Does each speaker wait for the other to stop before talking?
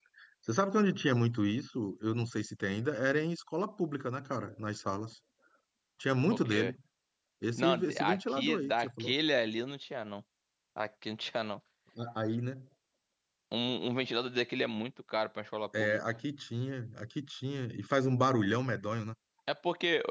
No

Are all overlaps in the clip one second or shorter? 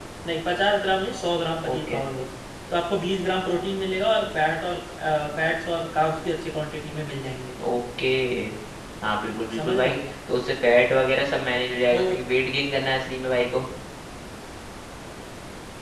Yes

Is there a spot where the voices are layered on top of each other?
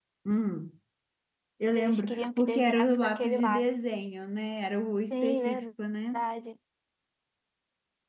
Yes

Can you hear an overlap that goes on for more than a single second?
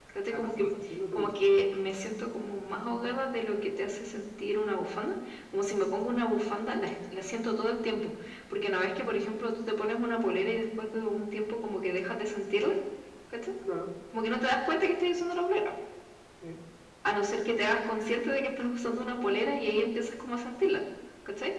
No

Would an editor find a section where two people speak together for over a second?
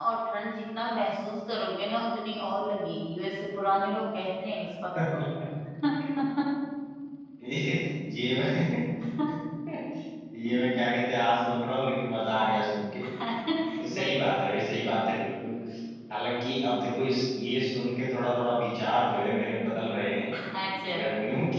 No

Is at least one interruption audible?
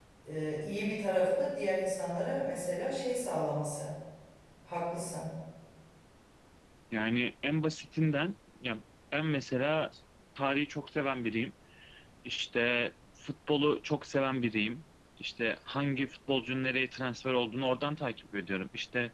No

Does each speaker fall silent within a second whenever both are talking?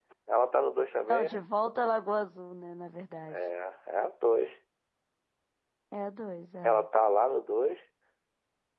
Yes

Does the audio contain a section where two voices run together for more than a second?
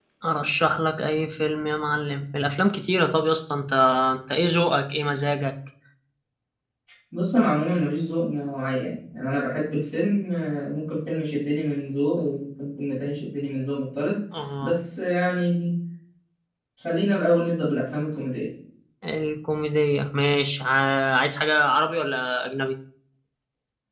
No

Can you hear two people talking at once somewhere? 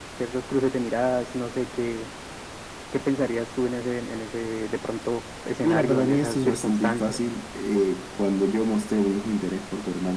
Yes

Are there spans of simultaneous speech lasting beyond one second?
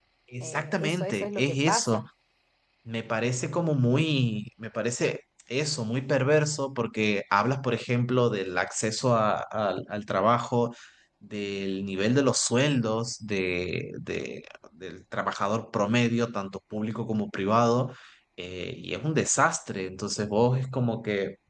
Yes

